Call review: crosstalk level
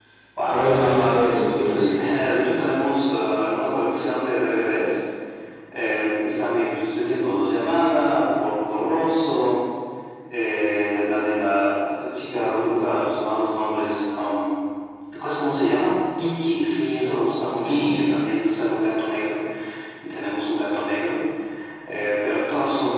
present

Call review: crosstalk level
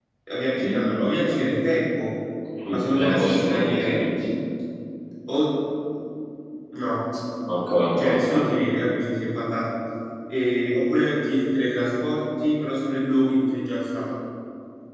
present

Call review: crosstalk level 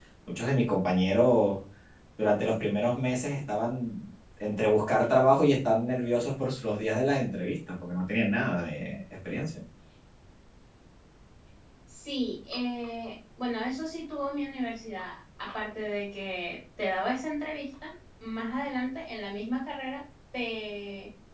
none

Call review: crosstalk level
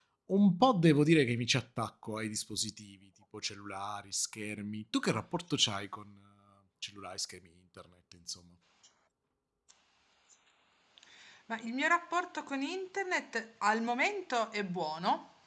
none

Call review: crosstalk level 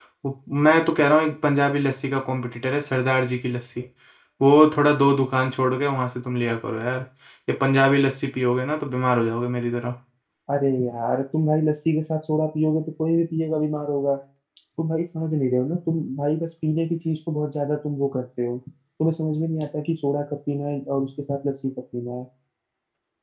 none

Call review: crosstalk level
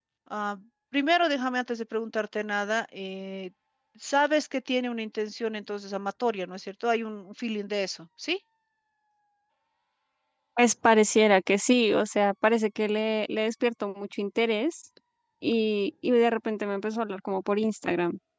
none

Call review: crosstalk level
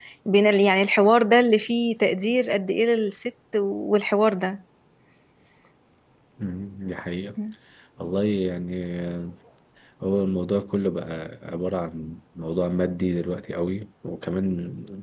none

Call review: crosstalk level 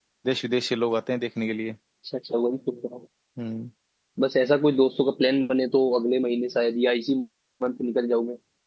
none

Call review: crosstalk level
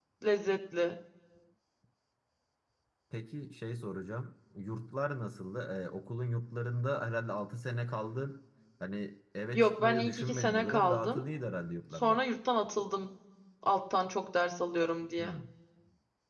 present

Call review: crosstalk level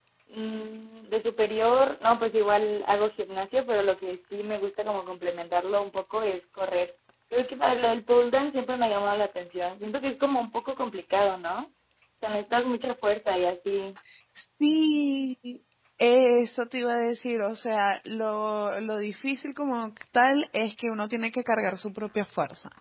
none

